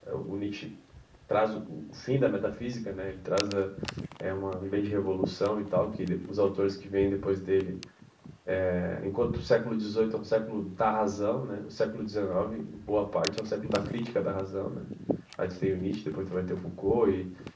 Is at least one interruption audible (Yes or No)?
No